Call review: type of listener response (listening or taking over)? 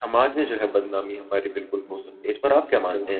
taking over